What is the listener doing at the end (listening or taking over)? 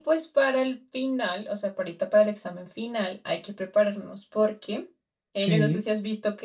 listening